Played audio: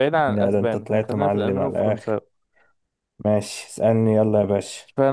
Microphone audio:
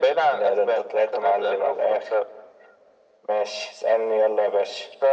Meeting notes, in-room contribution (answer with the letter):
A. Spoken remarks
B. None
B